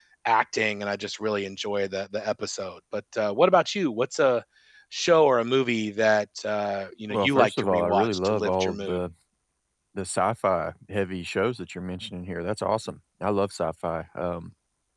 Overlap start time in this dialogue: 7 s

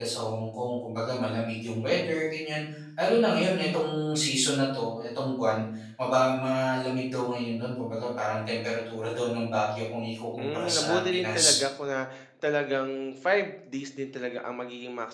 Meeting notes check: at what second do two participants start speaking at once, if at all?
10 s

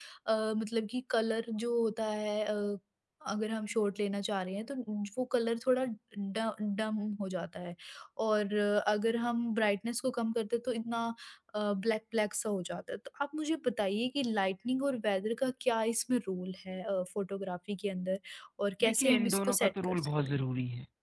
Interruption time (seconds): 19 s

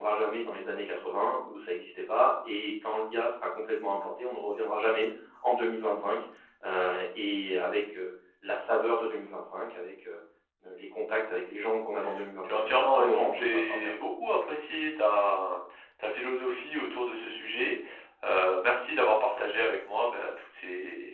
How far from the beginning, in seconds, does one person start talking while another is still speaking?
12 s

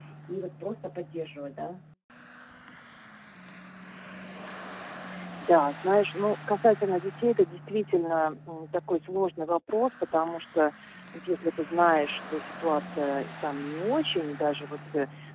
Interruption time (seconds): none

